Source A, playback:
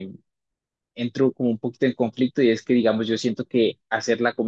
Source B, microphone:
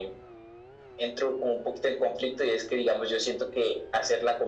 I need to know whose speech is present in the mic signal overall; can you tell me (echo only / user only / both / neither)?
echo only